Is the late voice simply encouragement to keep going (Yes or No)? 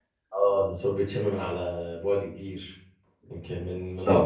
No